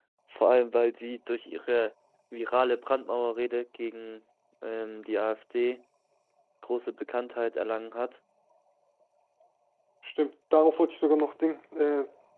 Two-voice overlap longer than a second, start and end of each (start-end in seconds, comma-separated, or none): none